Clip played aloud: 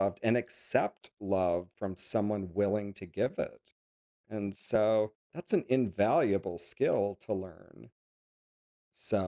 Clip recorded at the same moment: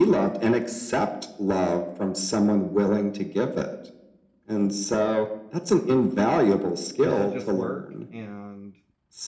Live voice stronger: No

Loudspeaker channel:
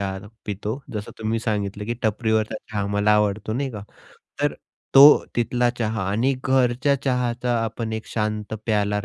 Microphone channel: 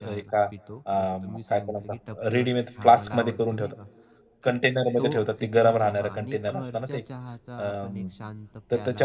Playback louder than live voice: No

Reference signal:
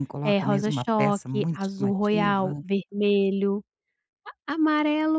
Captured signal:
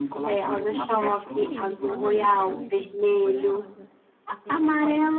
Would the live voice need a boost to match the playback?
Yes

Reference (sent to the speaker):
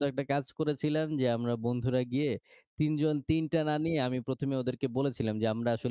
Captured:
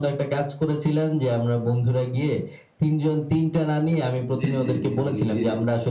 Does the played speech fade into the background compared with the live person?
No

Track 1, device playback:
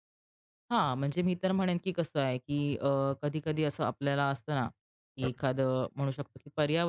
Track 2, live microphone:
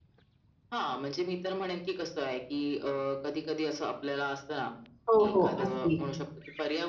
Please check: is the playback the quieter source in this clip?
Yes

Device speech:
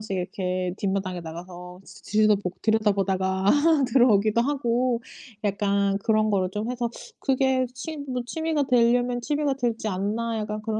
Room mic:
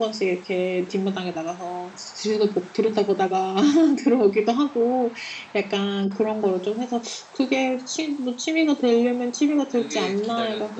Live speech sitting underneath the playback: Yes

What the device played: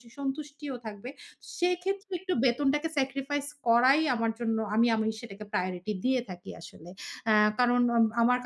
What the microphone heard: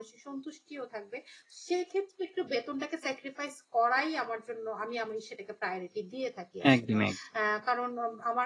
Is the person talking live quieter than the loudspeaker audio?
No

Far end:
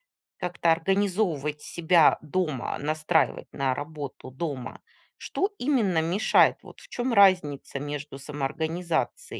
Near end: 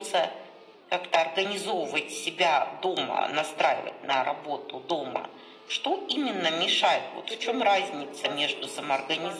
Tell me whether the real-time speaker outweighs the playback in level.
No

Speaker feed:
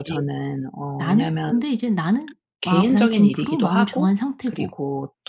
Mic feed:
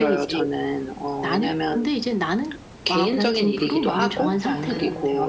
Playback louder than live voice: Yes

